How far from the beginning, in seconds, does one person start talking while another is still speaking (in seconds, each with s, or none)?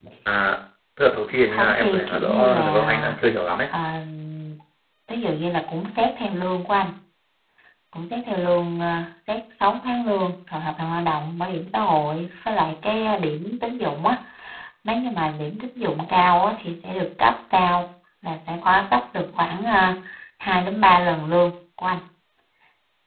1.5 s